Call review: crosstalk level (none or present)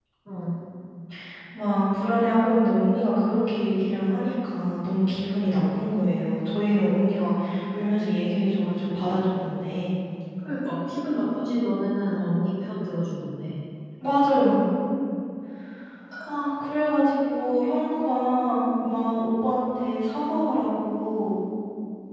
none